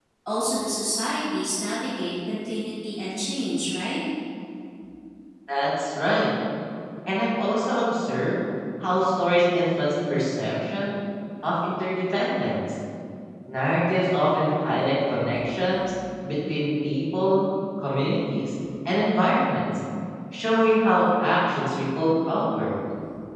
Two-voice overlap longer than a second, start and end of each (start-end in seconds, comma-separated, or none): none